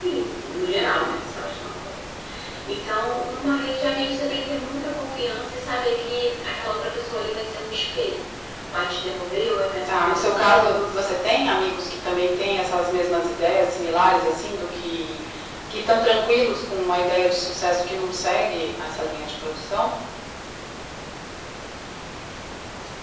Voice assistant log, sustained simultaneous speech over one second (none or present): present